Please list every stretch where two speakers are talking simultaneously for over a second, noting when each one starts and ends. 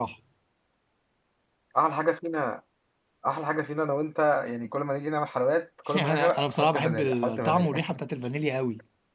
6.0-8.0

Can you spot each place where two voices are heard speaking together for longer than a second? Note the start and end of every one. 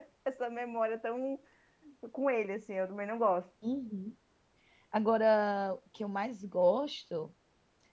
none

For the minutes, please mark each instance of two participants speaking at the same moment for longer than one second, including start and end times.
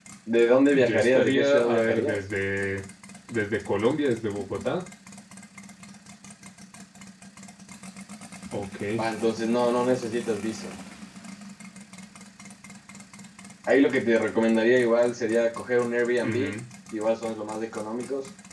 0.7-2.2

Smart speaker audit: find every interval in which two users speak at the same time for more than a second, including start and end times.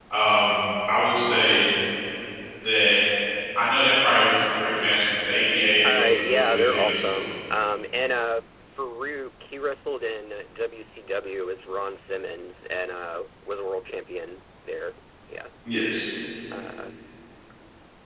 5.8-7.3

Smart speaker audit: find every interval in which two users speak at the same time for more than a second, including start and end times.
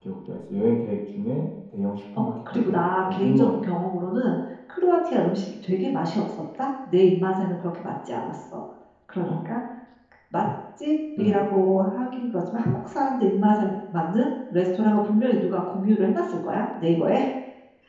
2.2-3.8

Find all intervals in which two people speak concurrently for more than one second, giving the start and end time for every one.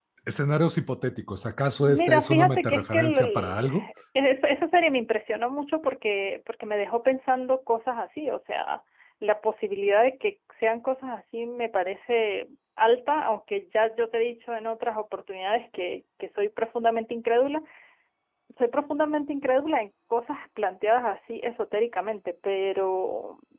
1.8-3.7

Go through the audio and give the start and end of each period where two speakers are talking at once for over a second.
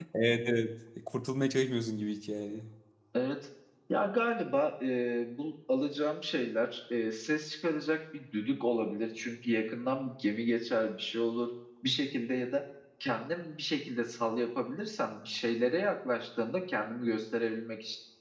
none

